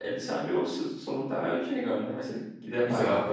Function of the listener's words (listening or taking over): taking over